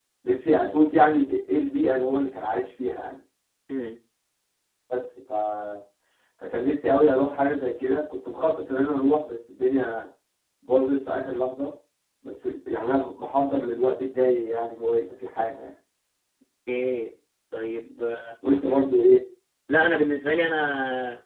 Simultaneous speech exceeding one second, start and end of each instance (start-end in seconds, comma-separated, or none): none